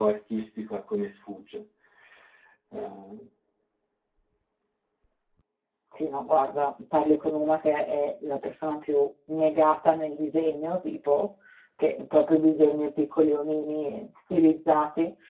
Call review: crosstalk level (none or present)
none